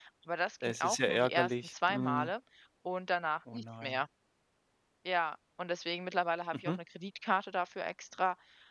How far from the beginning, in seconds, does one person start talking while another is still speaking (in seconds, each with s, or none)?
0.6 s